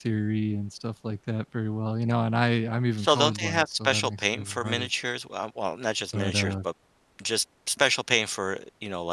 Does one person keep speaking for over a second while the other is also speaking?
Yes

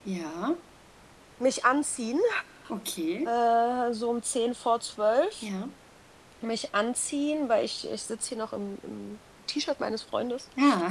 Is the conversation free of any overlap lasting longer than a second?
Yes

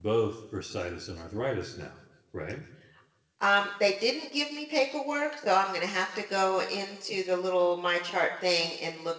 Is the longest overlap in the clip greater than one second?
No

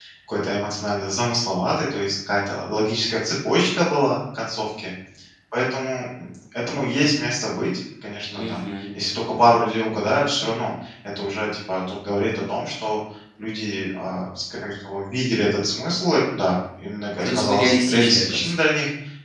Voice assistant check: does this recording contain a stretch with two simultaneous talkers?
Yes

